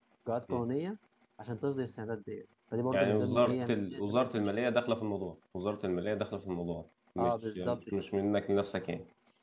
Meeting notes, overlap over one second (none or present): present